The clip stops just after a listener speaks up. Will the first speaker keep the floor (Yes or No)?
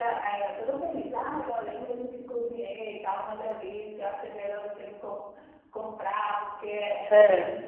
Yes